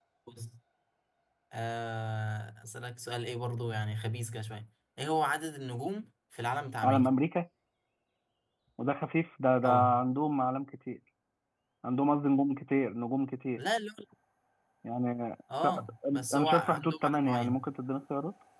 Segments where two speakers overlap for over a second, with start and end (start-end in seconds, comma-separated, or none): 16.3-17.7